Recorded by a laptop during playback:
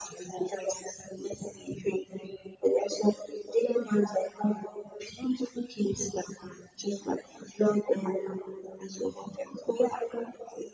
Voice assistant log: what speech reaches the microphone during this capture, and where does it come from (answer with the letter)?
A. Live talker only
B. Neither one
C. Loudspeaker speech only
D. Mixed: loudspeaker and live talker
C